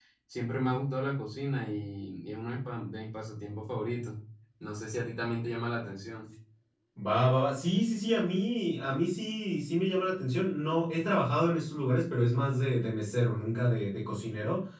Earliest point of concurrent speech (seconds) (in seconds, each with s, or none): none